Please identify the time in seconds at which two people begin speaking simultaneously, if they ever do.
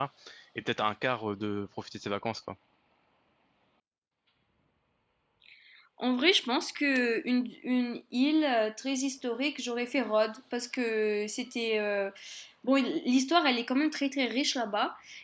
none

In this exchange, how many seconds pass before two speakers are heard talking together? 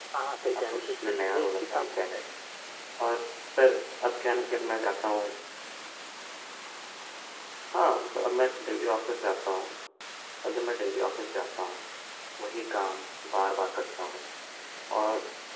1 s

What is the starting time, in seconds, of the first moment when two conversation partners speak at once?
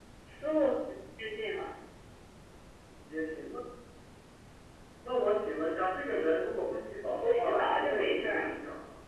7 s

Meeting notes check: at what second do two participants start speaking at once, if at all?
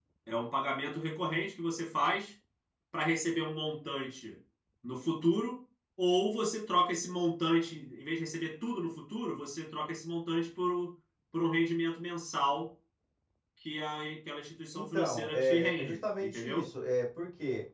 15 s

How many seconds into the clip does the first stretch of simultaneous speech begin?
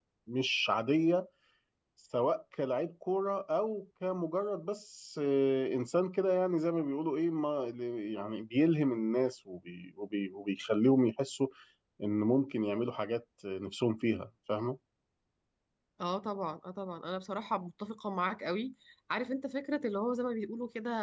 none

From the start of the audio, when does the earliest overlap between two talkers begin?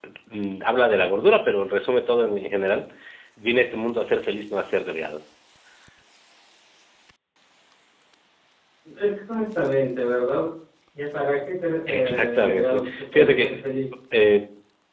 12 s

